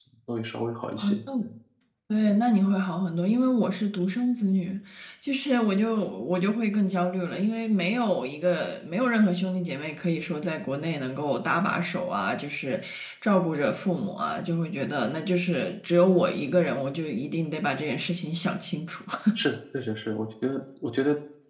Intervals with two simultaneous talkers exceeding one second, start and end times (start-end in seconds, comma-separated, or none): none